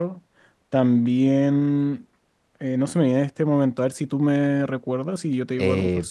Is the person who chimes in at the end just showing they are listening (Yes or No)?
No